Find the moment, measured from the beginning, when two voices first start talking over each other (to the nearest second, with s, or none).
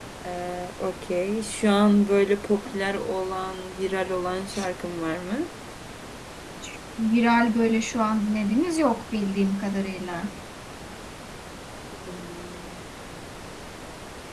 none